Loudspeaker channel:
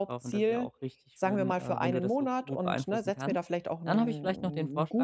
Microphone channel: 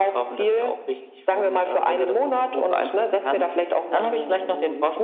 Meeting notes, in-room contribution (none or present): none